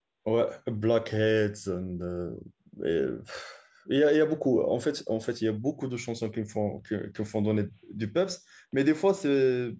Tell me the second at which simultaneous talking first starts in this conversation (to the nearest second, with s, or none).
none